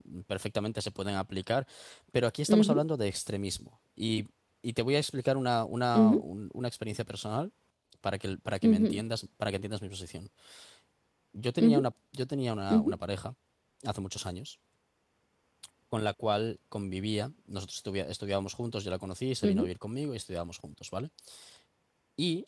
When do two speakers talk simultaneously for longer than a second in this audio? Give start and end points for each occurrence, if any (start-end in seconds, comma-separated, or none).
none